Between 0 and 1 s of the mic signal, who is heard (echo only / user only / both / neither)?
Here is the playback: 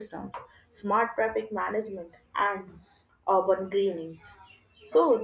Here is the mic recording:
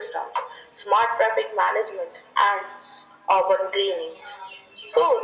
echo only